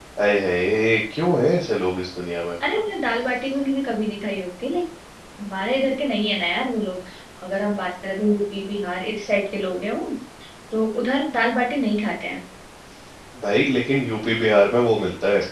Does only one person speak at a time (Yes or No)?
Yes